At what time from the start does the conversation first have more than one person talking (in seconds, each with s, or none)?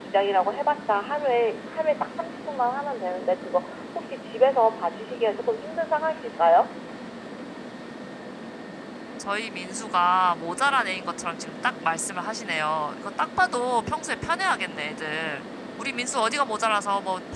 none